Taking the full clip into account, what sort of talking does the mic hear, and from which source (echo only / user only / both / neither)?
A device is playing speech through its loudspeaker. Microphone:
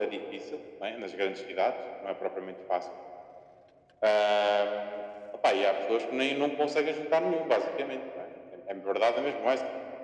echo only